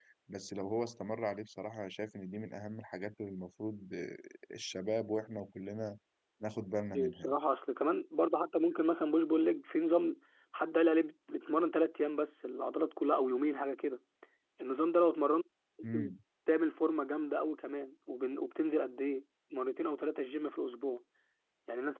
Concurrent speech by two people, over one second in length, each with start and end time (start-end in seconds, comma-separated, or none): none